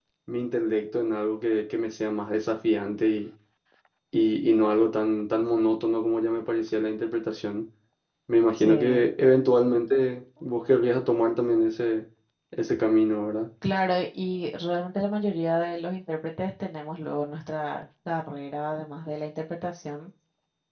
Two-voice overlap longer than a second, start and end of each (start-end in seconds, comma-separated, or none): none